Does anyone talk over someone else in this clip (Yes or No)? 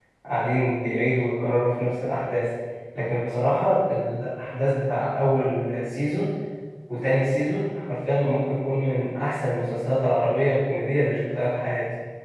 No